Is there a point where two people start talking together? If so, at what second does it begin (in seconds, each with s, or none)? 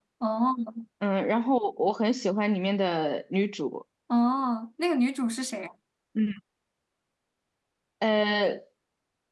none